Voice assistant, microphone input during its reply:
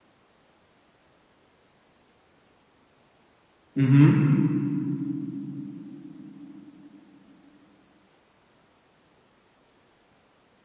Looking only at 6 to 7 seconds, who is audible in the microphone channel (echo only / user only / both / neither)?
neither